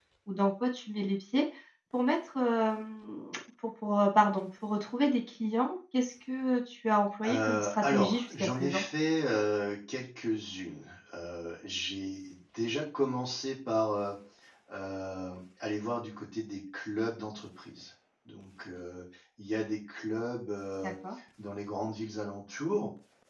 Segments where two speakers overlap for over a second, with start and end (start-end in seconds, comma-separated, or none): 7.2-8.8